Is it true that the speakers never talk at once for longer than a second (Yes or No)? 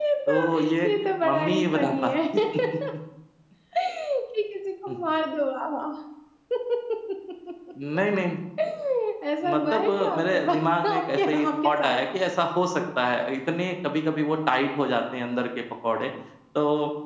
No